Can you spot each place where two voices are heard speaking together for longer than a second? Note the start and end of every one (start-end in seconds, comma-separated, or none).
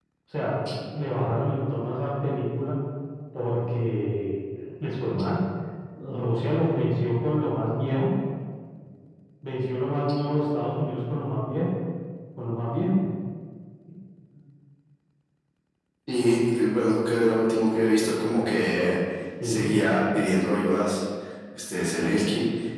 none